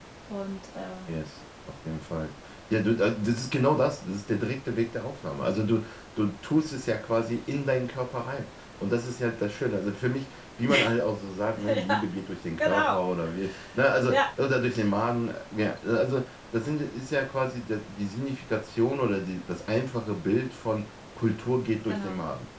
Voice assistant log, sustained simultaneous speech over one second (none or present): none